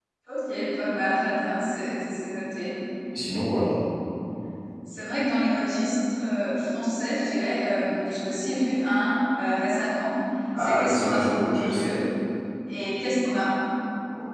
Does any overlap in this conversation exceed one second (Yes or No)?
Yes